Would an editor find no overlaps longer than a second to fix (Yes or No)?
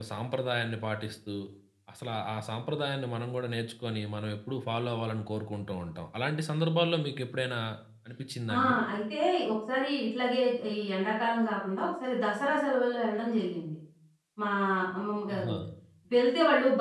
Yes